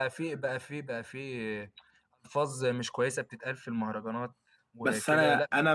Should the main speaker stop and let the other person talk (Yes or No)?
Yes